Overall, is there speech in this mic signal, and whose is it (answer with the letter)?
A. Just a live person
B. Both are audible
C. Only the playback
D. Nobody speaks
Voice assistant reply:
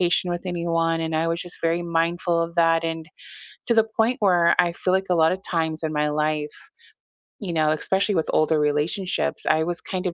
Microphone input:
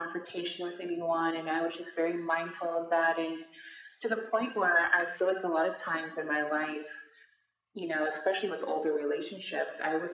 C